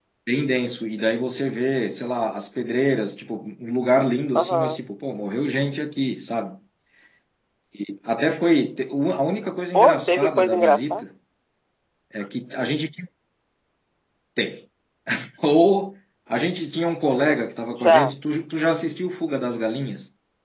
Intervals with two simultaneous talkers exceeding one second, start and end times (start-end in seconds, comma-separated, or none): 9.7-11.0